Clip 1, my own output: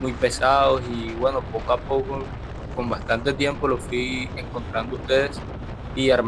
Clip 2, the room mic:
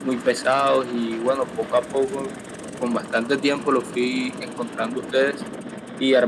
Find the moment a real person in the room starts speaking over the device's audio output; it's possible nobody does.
none

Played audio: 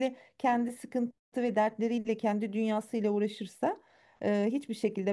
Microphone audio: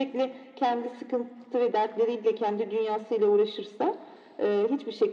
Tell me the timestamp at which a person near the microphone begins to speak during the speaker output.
none

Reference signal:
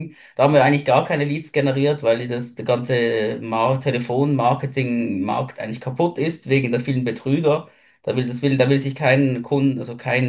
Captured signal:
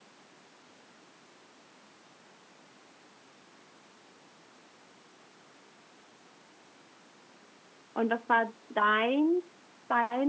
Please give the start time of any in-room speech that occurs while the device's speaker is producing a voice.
7.9 s

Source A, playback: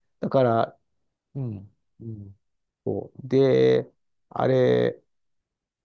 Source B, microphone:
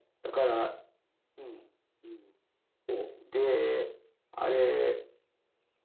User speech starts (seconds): none

